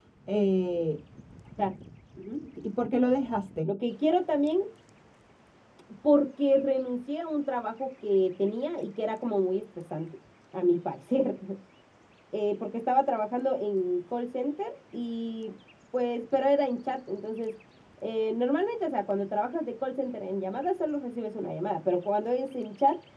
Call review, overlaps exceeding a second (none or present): none